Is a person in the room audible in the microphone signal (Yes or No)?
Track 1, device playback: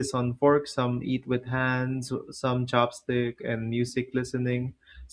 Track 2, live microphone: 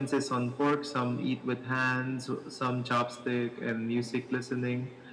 No